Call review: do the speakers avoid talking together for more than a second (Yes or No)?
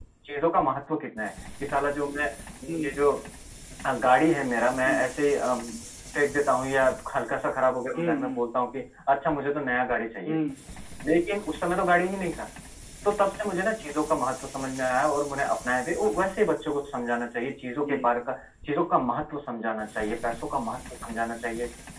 Yes